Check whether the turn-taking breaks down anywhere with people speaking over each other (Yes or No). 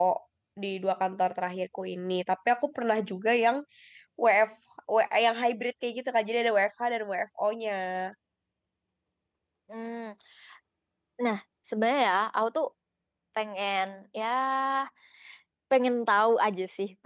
No